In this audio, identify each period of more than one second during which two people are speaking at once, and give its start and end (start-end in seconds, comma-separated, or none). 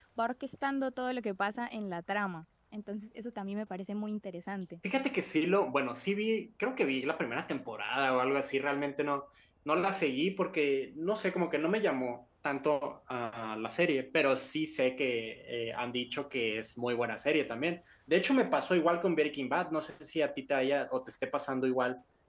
none